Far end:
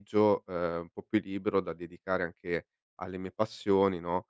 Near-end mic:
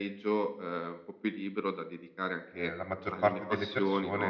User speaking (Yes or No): Yes